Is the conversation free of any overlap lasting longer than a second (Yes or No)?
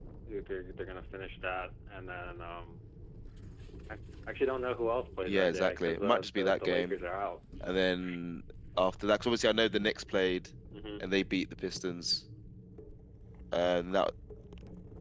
No